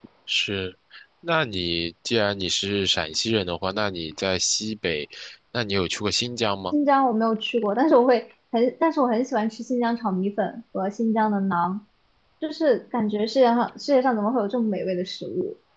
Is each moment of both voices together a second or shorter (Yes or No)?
Yes